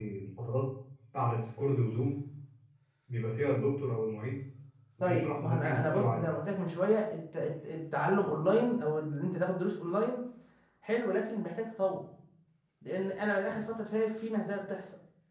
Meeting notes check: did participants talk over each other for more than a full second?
Yes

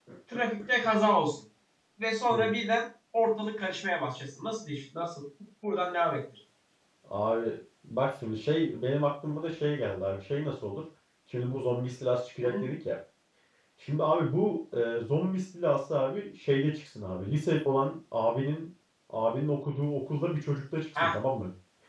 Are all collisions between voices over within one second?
Yes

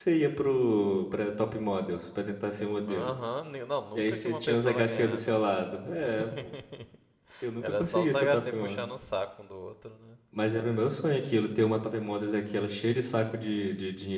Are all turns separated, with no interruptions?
No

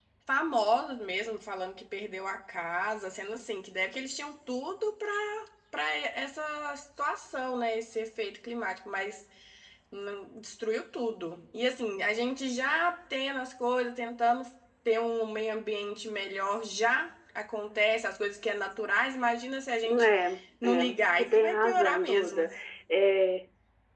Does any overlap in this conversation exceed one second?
Yes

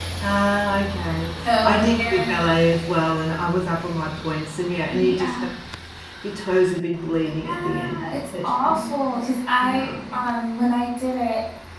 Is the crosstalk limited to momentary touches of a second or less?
No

